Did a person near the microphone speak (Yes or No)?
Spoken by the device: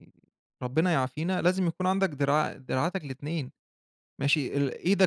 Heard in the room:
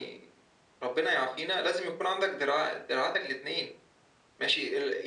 No